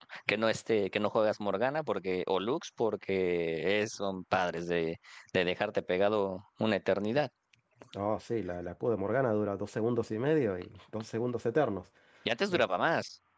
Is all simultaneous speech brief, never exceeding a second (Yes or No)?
Yes